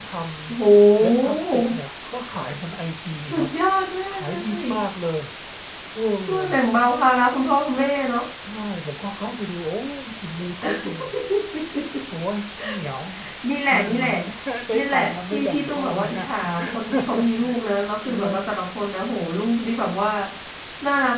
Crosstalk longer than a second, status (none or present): present